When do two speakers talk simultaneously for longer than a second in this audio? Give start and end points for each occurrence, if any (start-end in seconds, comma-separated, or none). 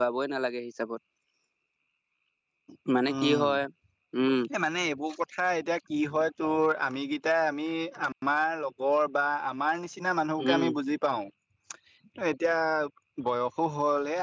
none